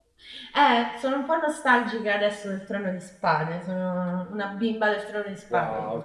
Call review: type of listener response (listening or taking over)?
taking over